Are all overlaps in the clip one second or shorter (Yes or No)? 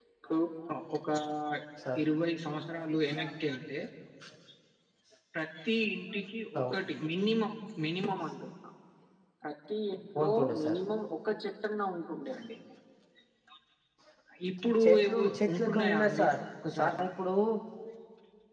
No